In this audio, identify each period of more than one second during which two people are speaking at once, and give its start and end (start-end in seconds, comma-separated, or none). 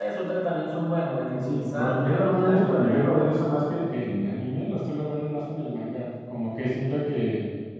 1.3-3.4